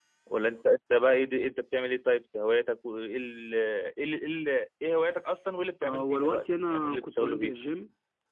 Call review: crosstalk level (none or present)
present